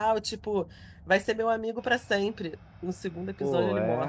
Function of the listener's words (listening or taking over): taking over